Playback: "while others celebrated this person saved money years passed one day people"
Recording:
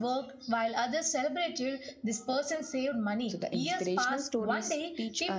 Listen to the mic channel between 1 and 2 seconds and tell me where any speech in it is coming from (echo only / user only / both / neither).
echo only